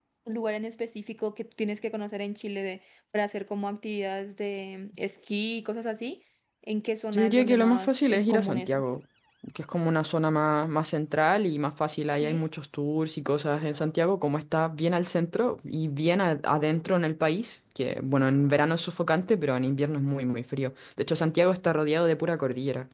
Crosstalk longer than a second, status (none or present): present